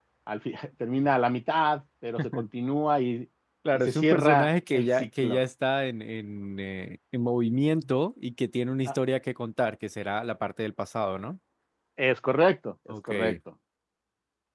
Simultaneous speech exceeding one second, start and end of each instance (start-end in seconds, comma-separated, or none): 3.7-5.4